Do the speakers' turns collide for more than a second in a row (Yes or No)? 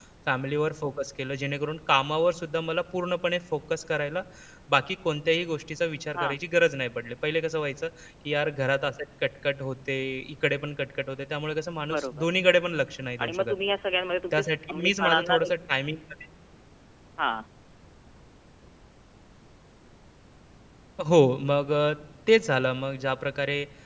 Yes